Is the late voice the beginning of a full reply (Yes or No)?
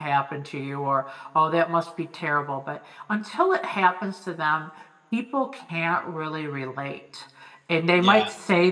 No